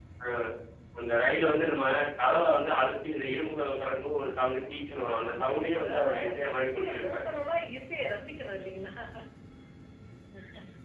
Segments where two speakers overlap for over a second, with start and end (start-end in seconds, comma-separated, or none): 5.2-7.2